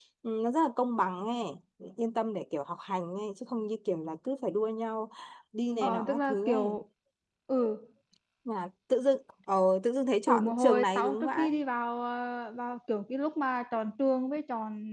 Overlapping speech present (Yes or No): Yes